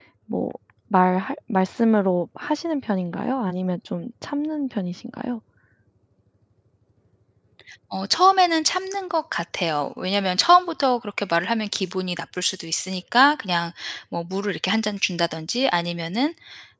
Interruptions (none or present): none